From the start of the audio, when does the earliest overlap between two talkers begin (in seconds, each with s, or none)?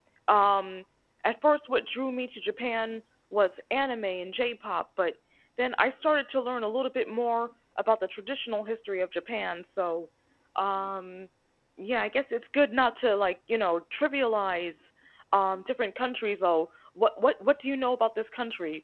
none